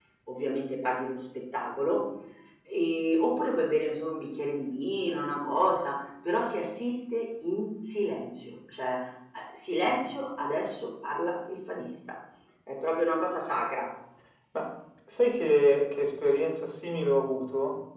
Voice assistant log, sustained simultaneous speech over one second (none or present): none